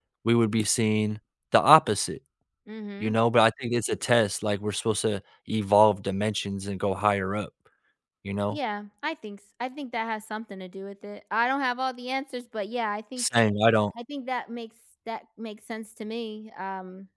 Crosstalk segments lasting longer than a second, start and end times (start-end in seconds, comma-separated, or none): none